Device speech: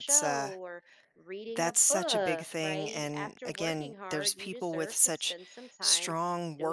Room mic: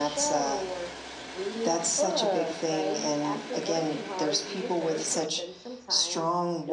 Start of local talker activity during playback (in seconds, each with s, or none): none